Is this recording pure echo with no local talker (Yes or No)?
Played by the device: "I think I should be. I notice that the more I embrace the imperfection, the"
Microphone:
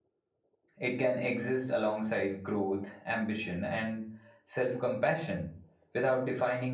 No